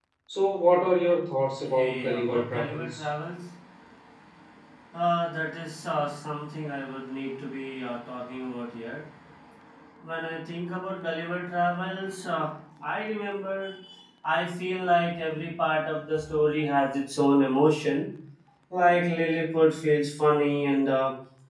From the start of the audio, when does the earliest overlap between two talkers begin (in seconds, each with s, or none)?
1.6 s